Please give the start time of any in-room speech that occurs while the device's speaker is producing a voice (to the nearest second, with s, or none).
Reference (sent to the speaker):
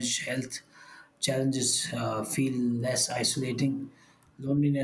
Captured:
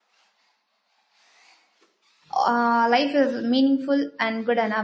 2 s